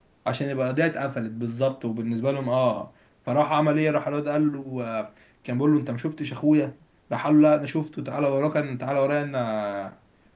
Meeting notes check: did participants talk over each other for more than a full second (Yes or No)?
No